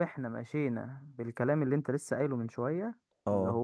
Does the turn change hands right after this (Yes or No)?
No